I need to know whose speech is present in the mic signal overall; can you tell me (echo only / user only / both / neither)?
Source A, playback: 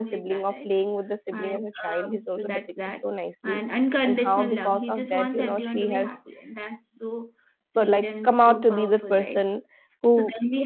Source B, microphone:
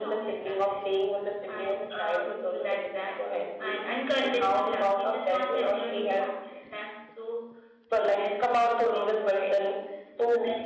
echo only